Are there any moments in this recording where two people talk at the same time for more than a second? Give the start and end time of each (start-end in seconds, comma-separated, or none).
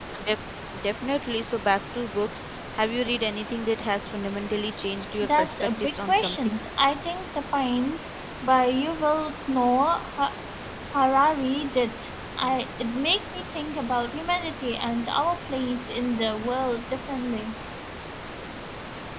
5.2-6.6